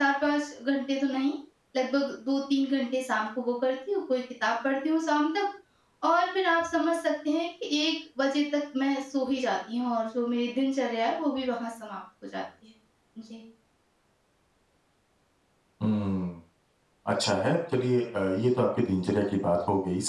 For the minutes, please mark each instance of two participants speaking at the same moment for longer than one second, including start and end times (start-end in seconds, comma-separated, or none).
none